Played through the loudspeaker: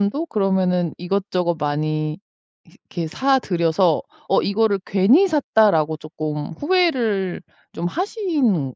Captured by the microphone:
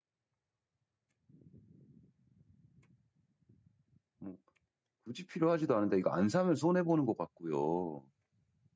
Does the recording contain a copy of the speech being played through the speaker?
No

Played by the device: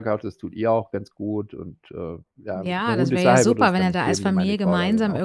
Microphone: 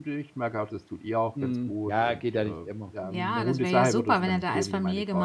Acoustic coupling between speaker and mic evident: Yes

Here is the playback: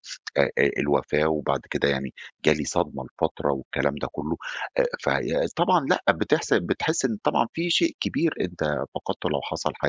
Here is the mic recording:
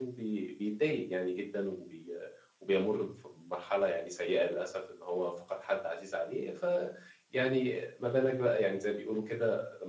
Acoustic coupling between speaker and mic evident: No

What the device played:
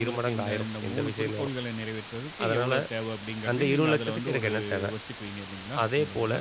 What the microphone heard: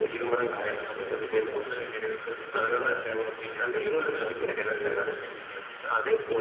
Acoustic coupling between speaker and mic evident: Yes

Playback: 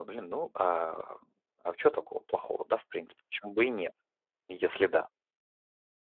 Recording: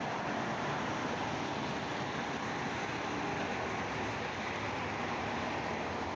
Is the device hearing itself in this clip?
No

